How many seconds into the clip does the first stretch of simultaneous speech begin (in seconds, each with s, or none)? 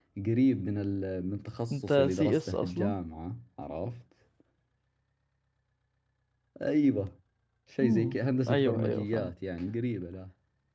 1.7 s